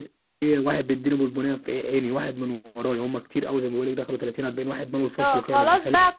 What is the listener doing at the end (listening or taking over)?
taking over